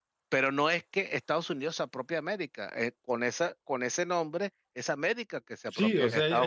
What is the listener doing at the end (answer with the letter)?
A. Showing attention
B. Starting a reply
B